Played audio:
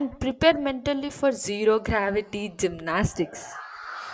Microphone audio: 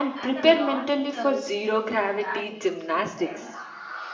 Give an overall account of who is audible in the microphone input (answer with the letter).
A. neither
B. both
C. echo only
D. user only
B